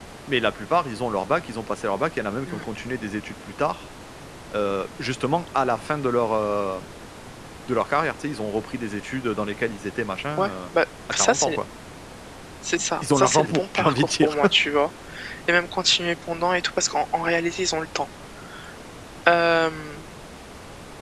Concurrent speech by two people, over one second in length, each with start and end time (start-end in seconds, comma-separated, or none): 13.0-14.4